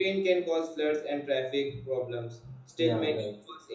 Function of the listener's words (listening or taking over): listening